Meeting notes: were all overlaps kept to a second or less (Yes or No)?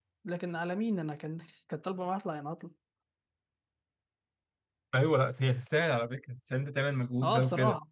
Yes